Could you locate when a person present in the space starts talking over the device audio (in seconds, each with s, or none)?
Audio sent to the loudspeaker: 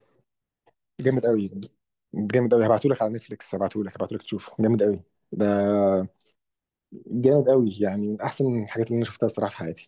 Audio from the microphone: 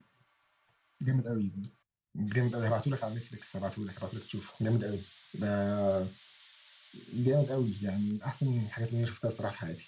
none